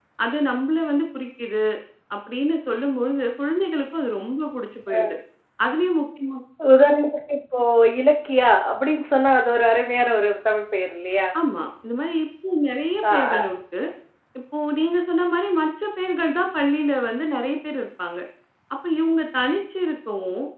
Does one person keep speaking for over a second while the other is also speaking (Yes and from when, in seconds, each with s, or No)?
No